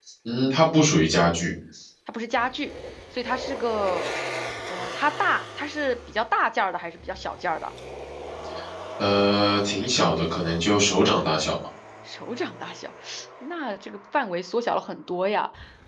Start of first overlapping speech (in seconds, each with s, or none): none